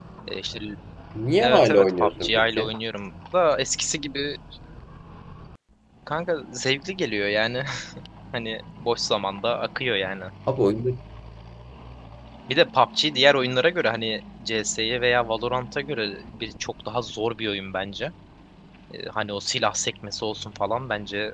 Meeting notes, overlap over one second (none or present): present